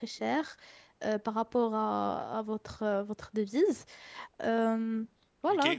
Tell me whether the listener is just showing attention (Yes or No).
No